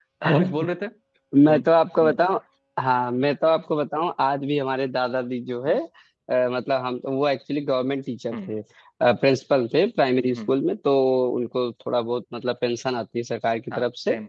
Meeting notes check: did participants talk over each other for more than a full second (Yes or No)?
No